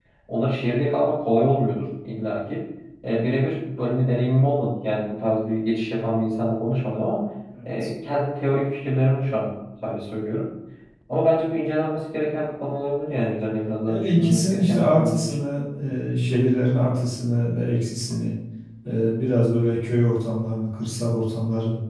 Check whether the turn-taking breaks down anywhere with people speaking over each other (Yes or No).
Yes